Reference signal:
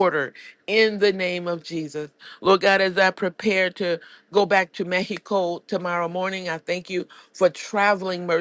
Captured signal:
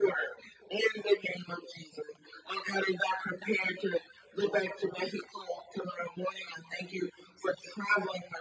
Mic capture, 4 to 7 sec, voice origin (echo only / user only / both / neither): echo only